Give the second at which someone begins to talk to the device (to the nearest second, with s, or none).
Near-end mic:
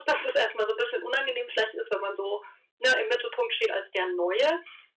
none